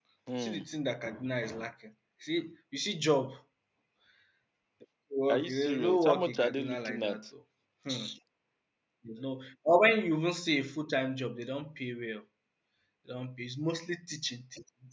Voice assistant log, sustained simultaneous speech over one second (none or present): present